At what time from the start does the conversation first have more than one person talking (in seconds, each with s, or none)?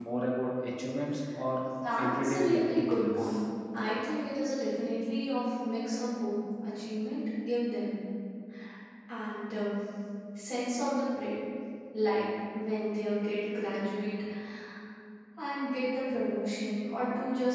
2.1 s